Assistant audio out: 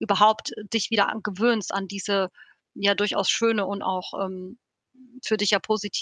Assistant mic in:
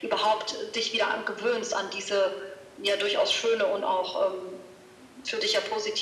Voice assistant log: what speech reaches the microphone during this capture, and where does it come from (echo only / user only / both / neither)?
echo only